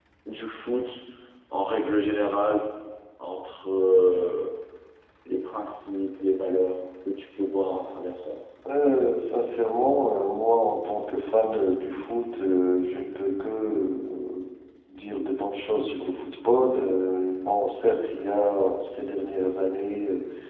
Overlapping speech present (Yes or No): No